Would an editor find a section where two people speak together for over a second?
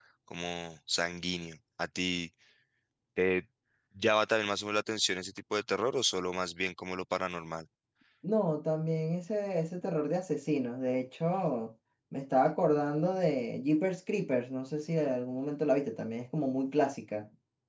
No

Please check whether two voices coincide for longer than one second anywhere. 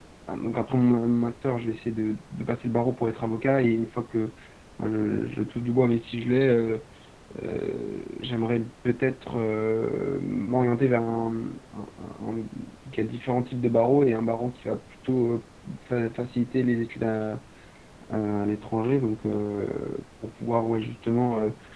No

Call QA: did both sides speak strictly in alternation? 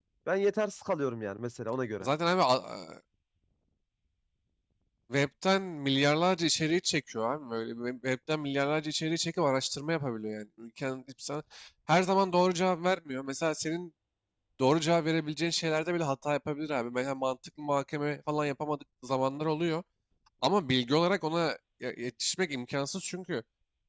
Yes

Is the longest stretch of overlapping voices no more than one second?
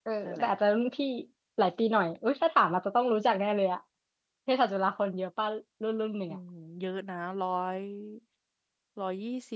Yes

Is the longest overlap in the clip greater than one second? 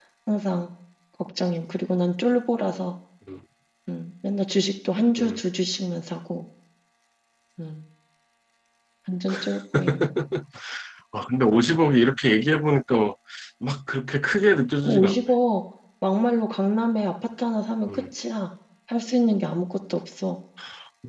No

